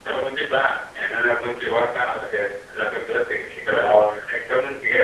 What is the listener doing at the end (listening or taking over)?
listening